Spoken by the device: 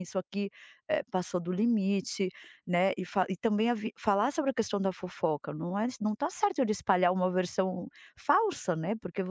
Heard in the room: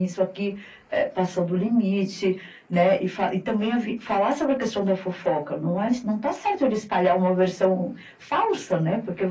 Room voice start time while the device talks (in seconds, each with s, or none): none